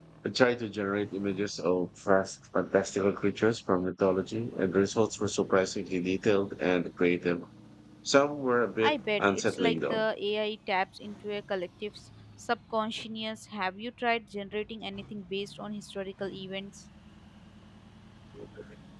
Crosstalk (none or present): present